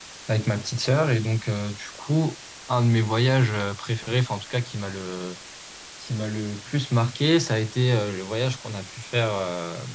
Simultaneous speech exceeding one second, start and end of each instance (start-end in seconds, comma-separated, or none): none